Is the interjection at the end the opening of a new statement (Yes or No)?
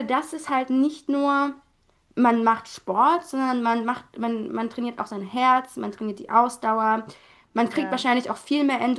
No